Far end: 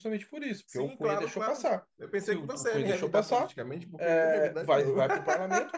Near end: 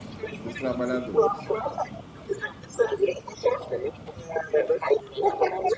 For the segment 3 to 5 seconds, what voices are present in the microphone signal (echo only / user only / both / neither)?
echo only